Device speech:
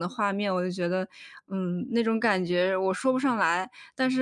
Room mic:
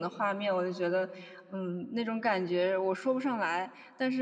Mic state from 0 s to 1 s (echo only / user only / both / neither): echo only